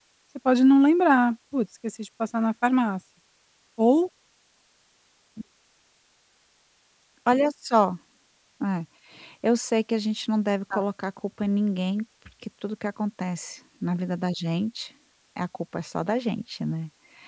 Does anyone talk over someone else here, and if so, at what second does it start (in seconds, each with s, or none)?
none